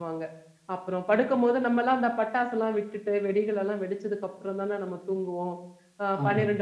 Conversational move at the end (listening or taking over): listening